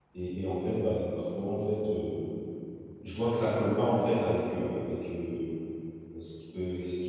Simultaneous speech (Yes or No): No